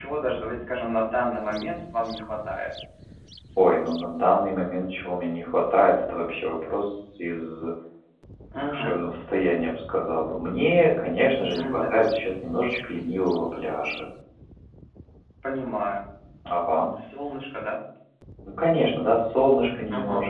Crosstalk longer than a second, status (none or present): none